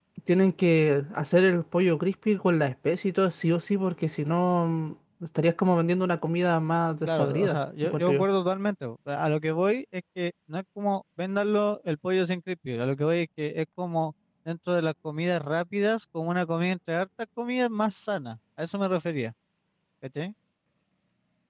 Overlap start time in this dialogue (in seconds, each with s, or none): 7.0 s